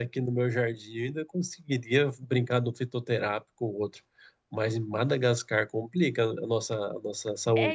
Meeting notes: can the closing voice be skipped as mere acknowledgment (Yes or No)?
No